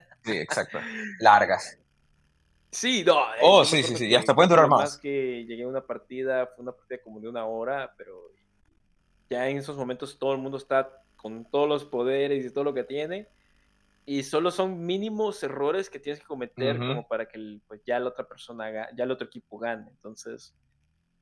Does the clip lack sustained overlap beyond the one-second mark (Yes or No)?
No